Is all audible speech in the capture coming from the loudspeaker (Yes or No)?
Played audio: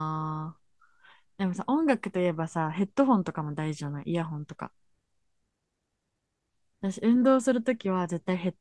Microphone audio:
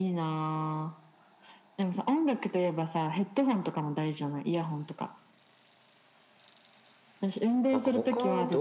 No